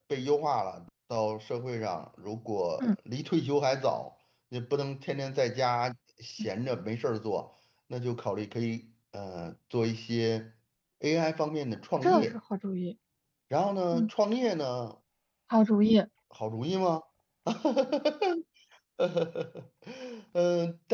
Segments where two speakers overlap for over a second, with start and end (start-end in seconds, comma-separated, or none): none